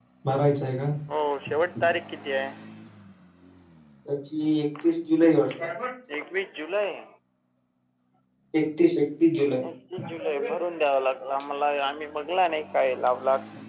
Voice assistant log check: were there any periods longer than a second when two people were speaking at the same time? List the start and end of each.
none

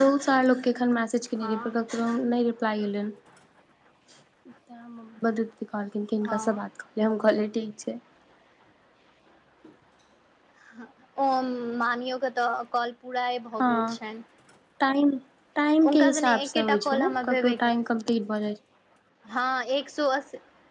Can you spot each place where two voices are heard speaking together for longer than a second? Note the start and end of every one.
15.8-17.8

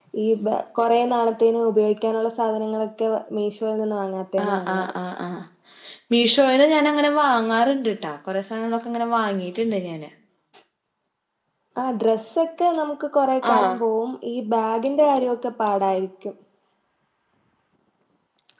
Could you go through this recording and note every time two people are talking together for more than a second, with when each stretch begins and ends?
none

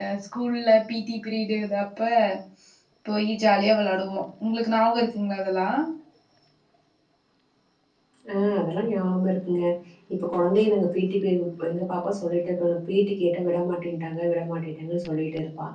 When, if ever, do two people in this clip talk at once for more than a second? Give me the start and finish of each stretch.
none

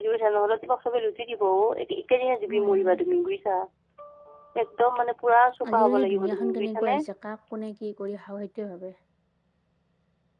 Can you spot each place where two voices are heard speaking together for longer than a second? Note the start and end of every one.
5.7-6.9

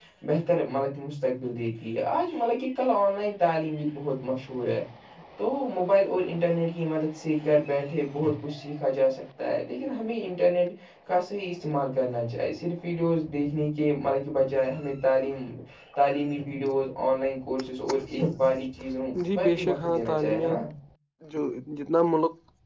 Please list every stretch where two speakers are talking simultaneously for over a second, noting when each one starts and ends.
19.4-20.6

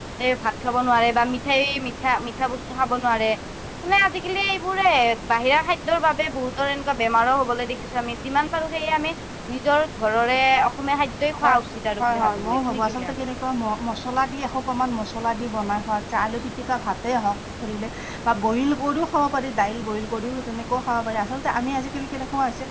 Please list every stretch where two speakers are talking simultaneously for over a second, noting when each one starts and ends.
12.0-13.2

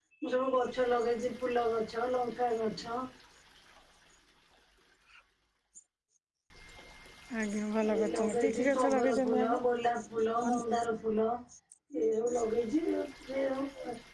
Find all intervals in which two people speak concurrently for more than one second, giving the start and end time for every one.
8.0-9.6

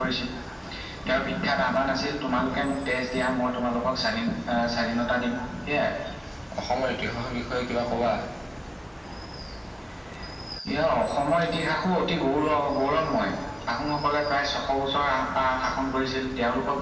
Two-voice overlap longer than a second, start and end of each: none

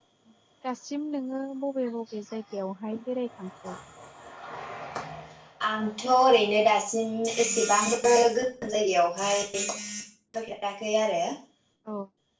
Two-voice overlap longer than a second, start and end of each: none

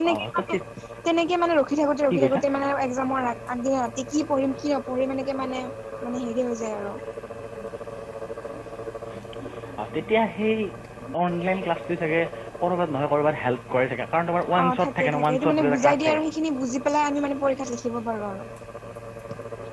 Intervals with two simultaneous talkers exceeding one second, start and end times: 14.6-16.2

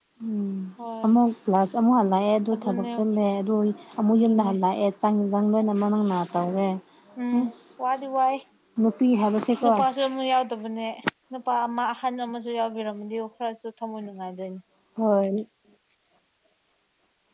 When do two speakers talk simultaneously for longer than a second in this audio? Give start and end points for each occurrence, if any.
none

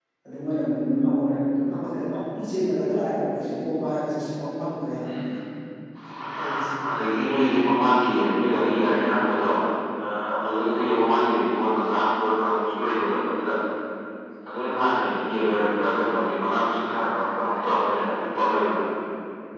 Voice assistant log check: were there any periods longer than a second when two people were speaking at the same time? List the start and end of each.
none

